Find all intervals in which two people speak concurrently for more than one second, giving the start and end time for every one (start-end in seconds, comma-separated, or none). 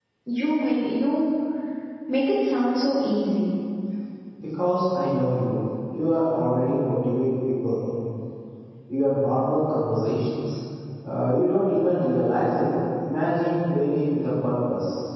none